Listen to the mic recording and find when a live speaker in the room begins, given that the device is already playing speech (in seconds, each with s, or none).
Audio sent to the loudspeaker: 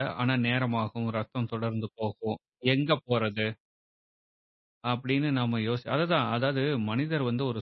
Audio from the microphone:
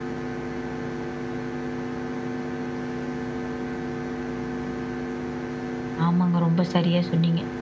6.0 s